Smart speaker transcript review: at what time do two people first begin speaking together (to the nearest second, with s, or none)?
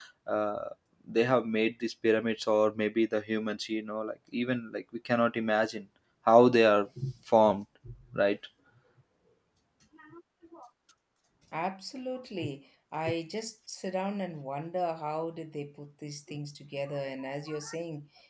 none